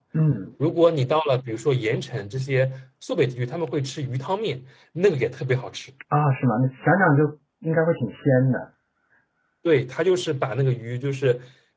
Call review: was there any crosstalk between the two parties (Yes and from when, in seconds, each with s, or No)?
No